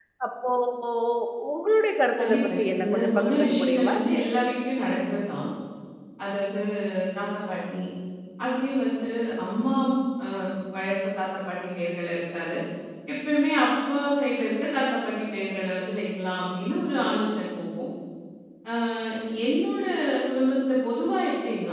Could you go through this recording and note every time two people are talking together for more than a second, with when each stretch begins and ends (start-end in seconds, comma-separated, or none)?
2.2-3.9